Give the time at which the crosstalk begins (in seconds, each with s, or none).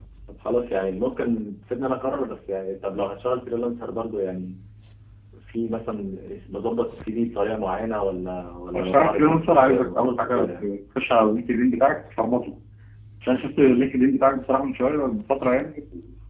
8.7 s